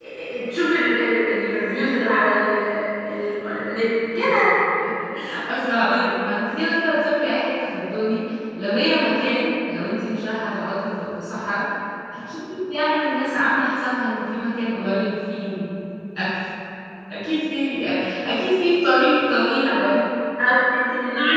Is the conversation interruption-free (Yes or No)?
Yes